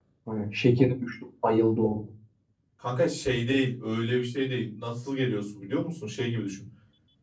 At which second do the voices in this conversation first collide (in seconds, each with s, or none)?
none